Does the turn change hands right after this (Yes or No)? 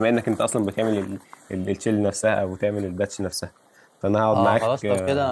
Yes